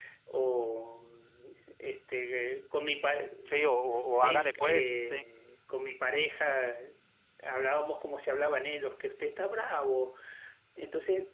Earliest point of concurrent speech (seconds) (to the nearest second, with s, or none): 4 s